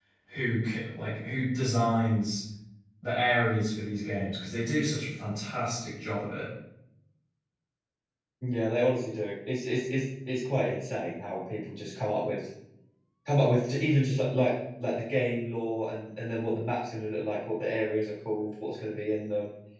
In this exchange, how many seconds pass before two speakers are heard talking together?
none

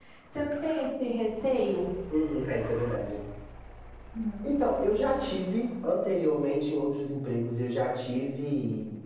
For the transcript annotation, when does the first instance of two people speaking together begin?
none

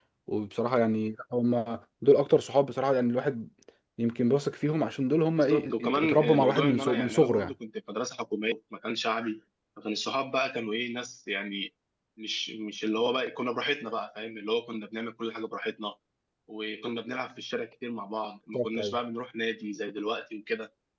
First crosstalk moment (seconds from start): 5.3 s

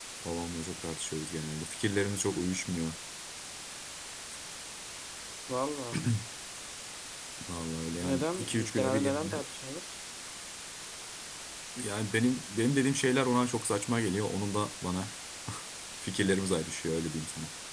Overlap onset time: 7.9 s

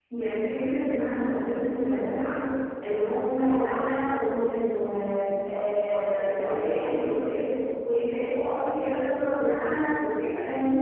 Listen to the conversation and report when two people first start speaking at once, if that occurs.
5.5 s

